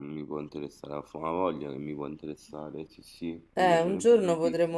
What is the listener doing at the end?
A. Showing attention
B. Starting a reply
B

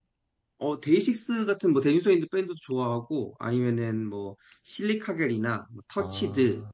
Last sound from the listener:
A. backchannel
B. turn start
A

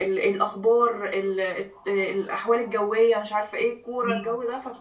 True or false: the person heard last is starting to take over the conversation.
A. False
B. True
A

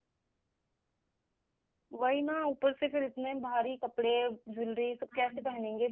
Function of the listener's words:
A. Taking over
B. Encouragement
B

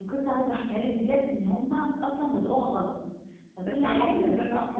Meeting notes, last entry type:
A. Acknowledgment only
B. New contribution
B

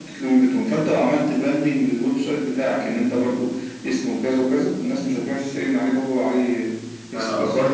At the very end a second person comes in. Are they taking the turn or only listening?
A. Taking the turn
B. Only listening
A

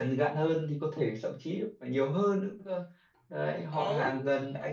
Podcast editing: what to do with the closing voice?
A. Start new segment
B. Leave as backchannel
B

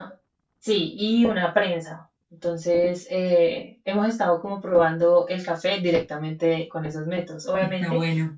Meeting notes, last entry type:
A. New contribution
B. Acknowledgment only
B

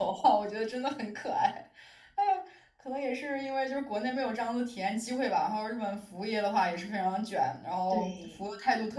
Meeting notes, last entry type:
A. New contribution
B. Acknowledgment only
B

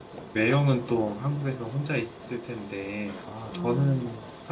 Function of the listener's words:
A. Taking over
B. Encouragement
B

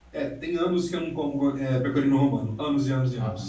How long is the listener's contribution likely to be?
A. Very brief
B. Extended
B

